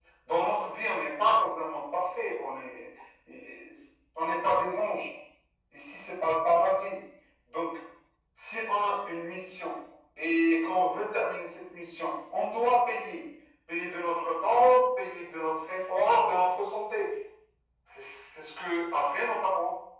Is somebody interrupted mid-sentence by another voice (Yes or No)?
No